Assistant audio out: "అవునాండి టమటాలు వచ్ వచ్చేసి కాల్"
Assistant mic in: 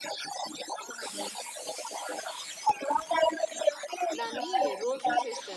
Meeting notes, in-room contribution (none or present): present